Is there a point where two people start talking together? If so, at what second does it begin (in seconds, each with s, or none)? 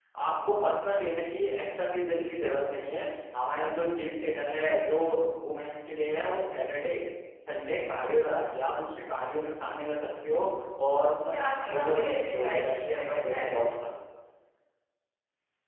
11.3 s